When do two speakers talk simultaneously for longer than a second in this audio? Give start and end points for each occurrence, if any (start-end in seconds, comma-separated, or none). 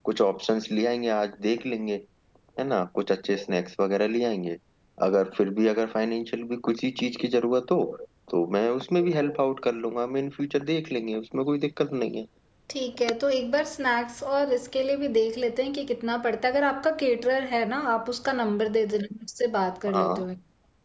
none